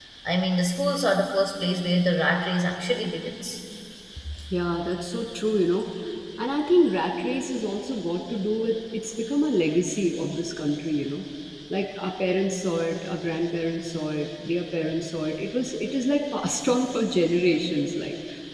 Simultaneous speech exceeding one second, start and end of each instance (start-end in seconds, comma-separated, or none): none